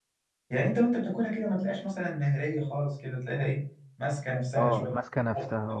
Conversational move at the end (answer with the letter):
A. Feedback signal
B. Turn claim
B